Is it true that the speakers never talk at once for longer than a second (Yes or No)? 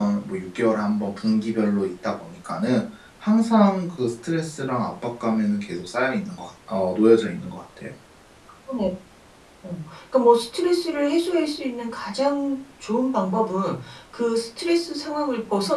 Yes